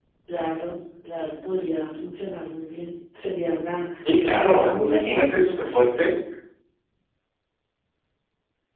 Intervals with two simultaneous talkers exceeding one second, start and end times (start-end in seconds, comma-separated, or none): 4.3-5.6